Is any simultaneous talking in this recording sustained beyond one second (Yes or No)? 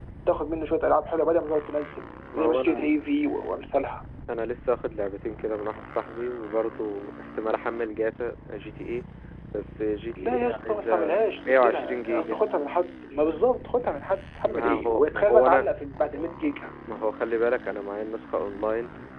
Yes